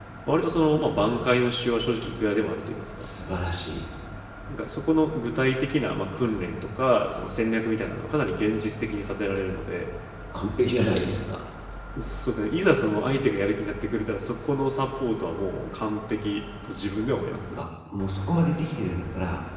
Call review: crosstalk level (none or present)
none